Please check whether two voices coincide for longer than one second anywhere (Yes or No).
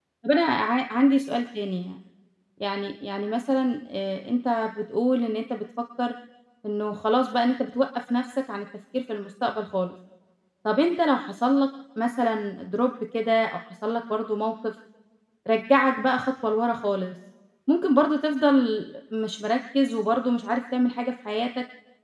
No